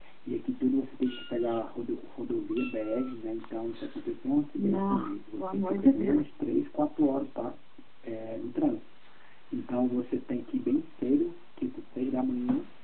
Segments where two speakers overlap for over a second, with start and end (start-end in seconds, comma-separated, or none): 4.6-6.3